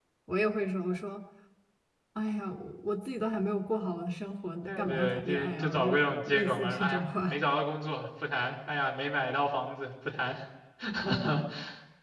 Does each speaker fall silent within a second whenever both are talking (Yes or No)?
No